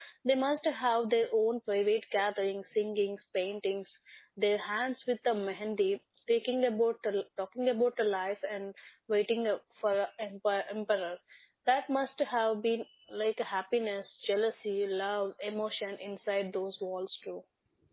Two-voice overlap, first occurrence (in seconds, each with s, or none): none